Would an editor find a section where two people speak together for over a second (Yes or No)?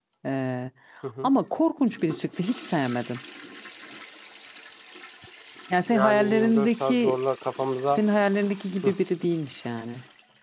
Yes